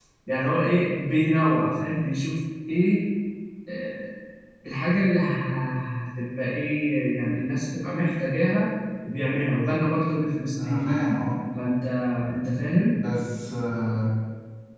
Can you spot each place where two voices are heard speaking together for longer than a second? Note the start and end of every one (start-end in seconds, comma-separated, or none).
none